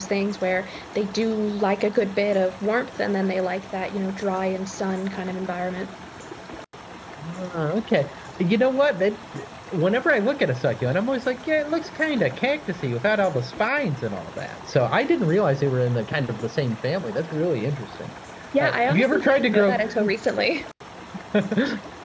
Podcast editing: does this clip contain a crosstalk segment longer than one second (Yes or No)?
Yes